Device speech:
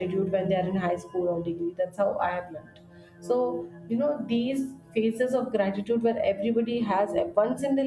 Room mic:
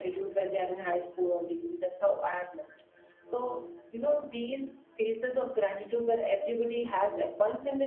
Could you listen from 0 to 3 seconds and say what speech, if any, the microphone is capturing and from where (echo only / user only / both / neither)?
echo only